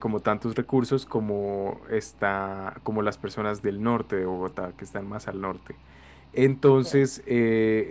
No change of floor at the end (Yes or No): Yes